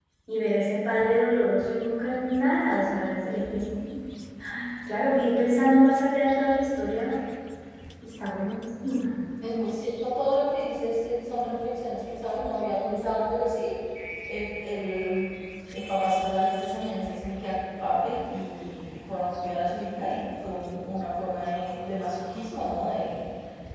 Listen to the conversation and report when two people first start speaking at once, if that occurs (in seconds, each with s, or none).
none